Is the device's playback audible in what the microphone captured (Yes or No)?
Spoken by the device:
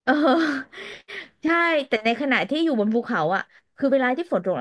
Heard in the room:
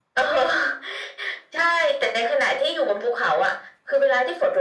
Yes